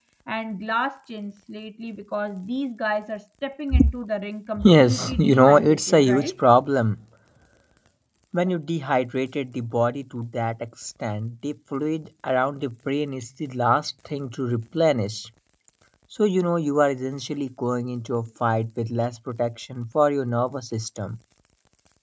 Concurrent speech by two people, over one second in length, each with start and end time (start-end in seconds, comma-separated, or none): 4.6-6.3